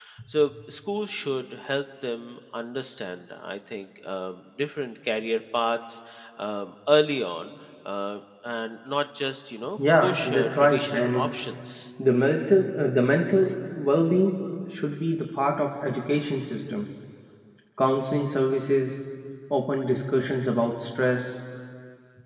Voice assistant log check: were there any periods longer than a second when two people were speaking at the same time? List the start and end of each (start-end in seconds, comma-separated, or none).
10.0-11.3